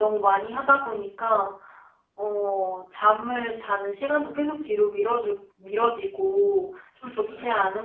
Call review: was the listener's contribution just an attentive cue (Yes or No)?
Yes